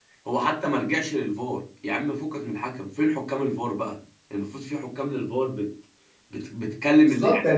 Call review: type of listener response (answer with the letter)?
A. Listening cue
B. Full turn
B